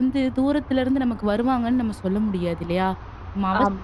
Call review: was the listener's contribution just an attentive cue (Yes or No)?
Yes